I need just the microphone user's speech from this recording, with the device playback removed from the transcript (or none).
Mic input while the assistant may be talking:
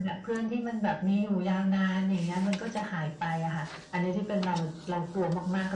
none